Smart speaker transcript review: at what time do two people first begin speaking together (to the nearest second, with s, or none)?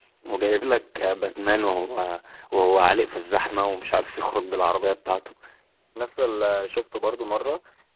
none